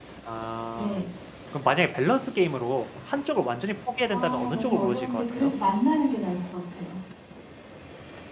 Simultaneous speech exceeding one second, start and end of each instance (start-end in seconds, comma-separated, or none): 4.1-5.5